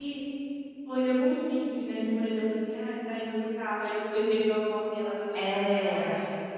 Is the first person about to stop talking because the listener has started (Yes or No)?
No